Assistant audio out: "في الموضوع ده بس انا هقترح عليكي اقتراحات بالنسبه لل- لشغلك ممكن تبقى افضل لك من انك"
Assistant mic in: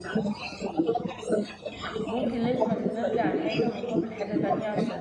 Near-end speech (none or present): present